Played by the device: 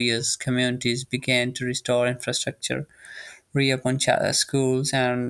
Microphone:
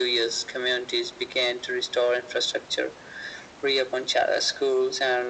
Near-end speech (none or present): none